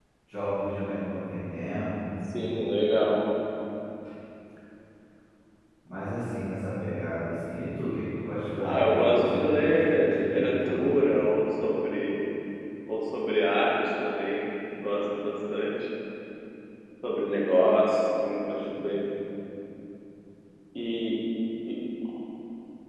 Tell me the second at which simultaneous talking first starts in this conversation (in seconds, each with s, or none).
8.6 s